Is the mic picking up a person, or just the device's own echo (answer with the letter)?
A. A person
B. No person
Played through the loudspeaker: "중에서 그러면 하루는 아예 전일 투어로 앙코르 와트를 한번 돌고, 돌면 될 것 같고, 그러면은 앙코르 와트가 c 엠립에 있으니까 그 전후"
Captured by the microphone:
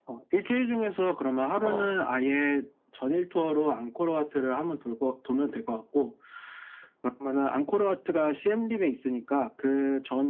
A